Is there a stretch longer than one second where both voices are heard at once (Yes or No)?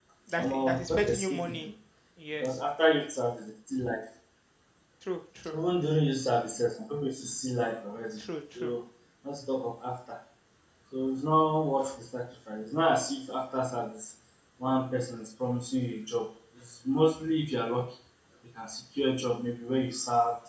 Yes